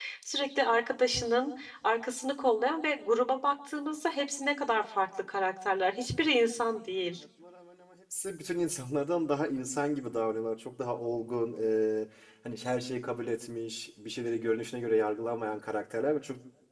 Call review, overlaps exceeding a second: none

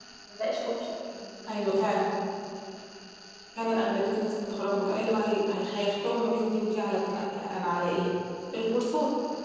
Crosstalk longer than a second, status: none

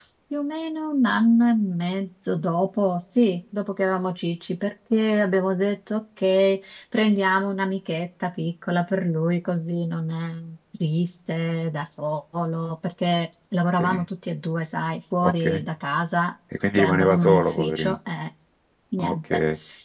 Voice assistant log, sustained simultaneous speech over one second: present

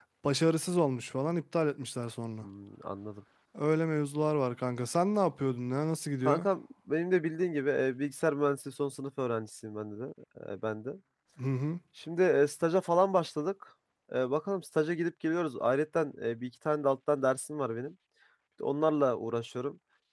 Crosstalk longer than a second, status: none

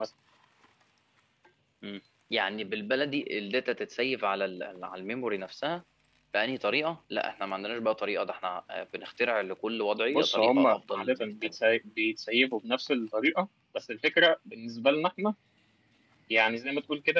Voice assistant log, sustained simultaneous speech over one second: present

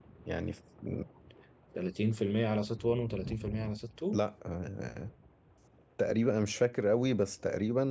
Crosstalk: none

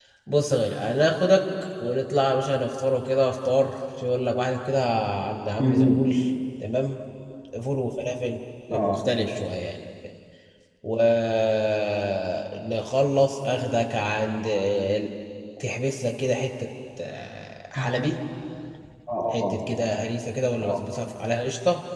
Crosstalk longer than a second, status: none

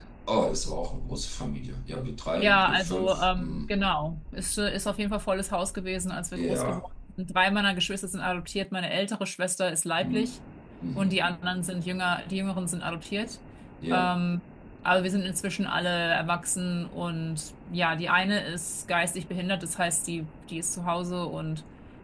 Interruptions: present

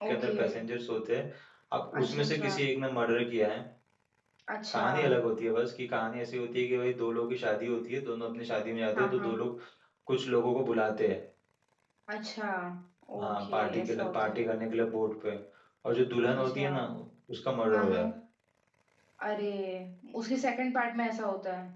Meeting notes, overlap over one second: present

